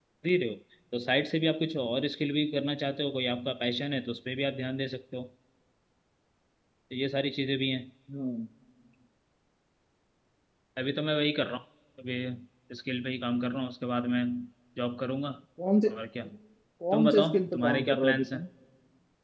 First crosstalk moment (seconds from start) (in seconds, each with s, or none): 16.9 s